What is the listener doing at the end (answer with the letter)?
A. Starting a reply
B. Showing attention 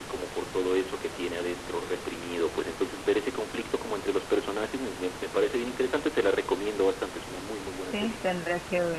A